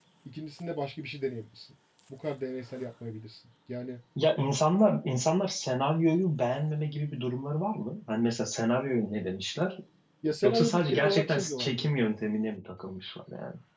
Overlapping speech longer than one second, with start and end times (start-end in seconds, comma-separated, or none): 10.4-11.9